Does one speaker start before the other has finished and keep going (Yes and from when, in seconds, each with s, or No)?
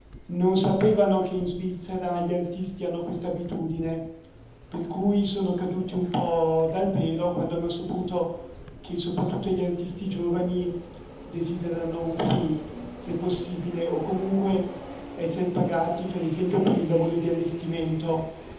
No